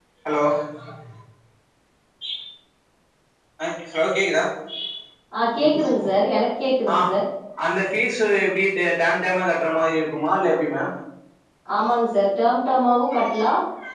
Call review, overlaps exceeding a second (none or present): none